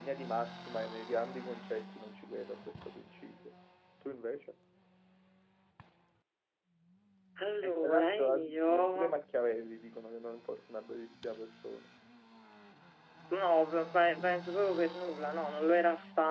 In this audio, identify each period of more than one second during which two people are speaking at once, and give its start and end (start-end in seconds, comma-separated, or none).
7.6-9.2